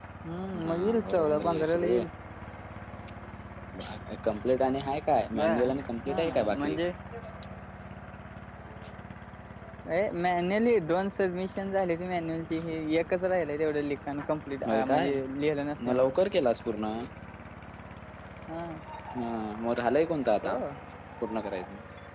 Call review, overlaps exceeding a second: present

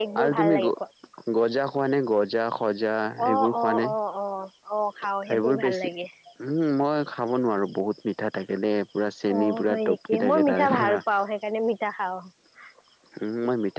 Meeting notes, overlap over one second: present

